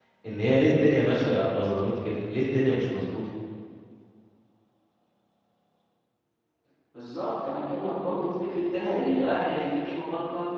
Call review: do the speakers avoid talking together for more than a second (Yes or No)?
Yes